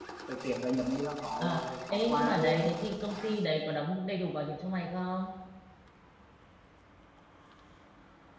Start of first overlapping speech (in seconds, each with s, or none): 1.4 s